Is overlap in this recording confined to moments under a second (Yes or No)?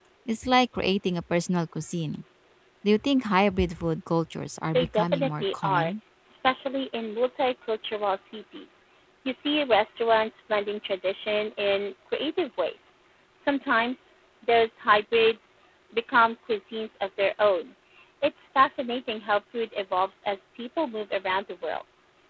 No